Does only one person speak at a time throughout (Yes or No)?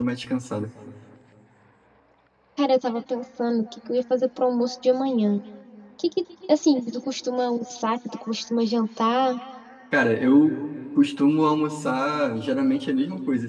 Yes